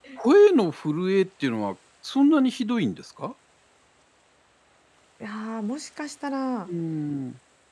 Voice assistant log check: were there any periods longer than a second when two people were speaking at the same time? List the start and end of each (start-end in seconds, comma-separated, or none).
none